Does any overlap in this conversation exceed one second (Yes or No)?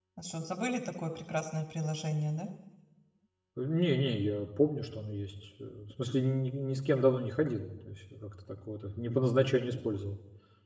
No